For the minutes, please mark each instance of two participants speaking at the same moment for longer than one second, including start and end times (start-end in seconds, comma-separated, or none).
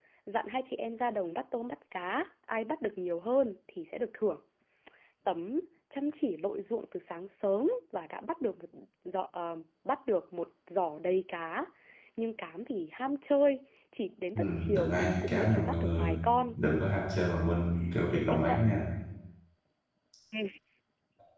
14.3-16.2